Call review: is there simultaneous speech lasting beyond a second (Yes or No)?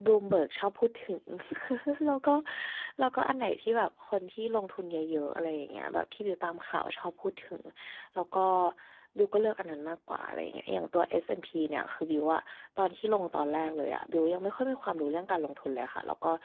No